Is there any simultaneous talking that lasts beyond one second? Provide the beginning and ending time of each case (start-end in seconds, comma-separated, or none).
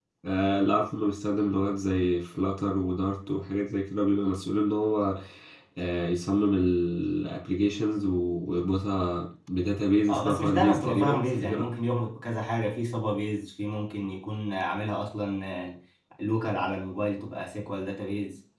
10.1-11.7